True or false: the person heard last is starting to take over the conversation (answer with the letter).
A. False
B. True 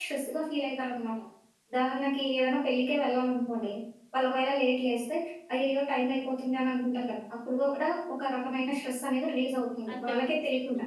B